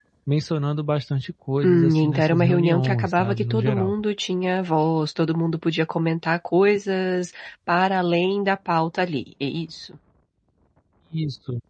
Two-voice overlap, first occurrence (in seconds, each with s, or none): 1.6 s